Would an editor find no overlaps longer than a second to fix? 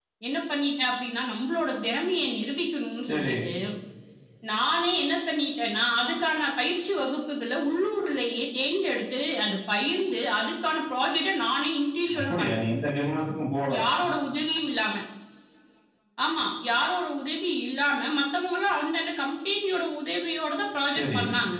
Yes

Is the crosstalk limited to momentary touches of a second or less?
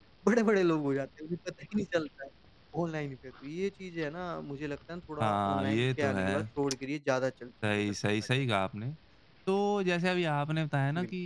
No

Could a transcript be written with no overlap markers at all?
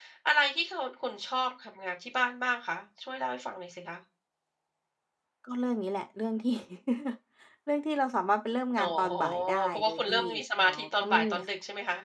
No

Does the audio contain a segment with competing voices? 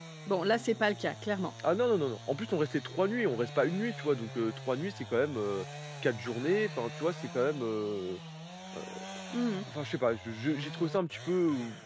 No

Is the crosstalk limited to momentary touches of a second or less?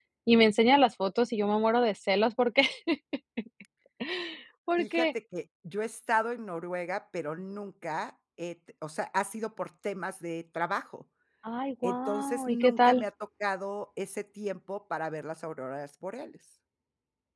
No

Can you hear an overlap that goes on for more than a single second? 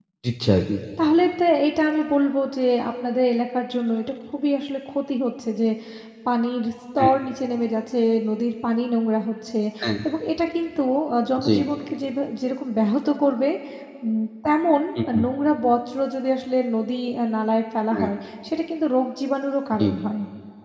No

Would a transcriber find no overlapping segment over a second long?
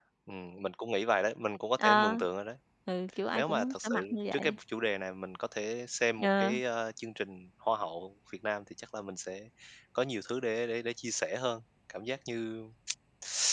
No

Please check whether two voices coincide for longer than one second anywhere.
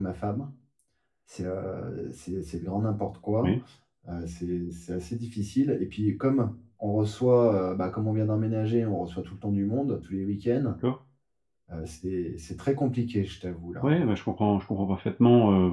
No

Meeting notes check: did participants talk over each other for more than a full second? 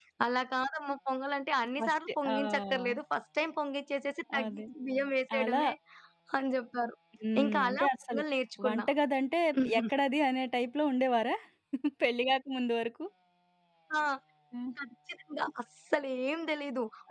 Yes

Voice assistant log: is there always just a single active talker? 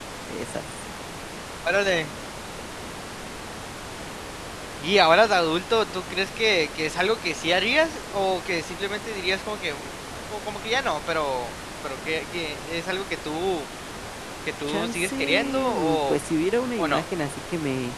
No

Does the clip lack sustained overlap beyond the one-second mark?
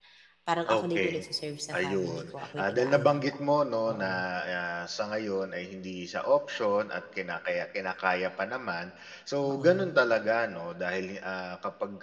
No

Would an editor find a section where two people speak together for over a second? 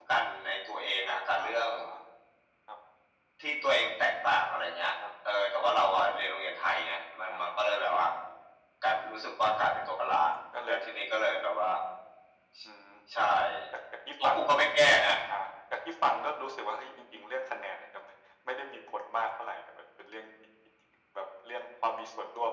No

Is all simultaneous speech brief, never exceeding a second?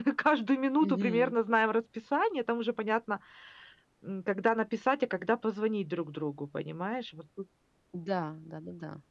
Yes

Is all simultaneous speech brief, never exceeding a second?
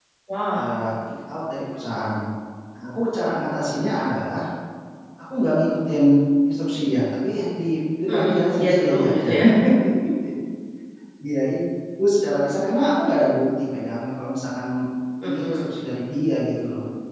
No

